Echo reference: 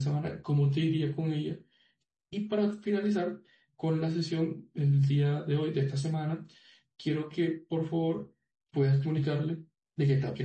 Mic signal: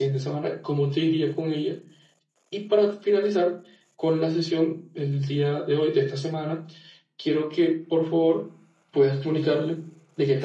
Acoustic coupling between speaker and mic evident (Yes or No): Yes